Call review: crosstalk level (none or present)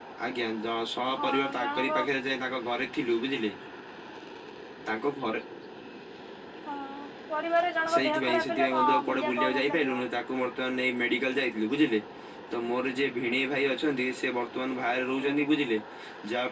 present